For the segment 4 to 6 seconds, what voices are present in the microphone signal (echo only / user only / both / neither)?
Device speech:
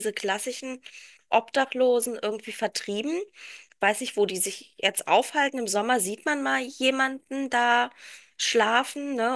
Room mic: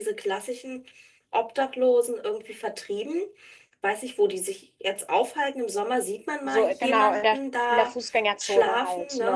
echo only